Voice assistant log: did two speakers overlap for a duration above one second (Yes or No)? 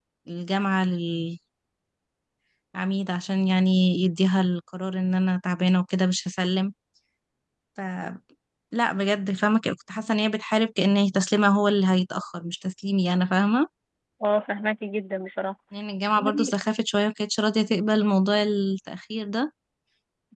No